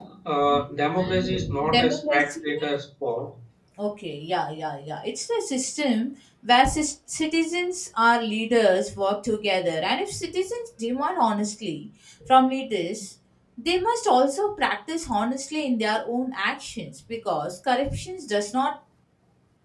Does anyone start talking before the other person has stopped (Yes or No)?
Yes